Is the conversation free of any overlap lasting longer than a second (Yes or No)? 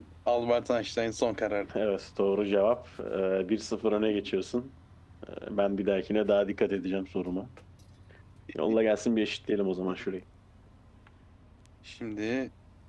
Yes